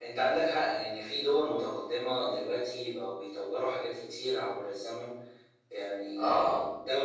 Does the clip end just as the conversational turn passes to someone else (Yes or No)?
No